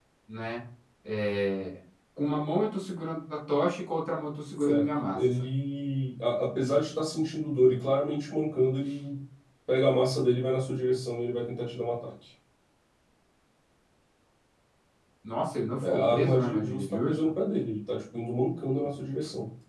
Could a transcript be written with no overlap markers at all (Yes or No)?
No